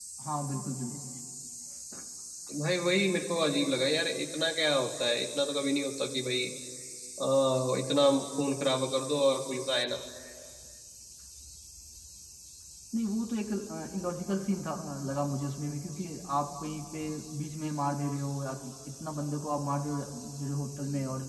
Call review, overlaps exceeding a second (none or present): none